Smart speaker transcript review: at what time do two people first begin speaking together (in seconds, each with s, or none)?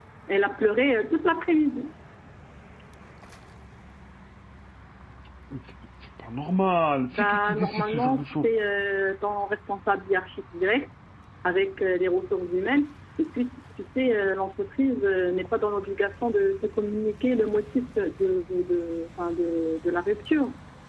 7.1 s